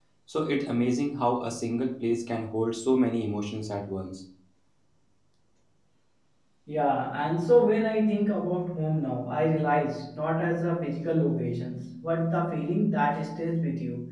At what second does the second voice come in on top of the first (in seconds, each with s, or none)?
none